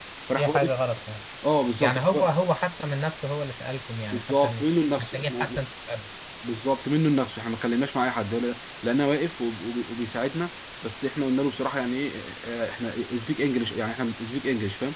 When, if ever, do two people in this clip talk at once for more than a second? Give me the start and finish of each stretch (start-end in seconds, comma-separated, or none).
4.1-5.6